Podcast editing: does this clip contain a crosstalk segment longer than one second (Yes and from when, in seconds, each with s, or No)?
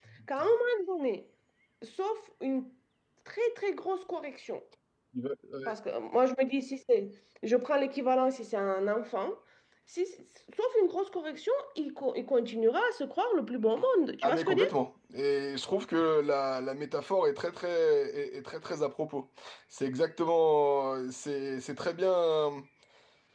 No